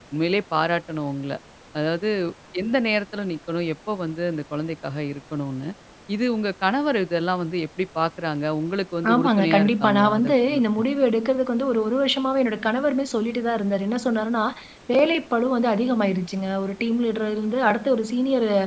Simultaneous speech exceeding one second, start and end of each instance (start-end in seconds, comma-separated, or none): 9.1-10.6